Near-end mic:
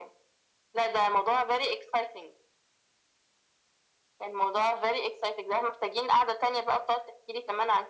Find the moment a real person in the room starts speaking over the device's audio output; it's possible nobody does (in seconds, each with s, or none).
none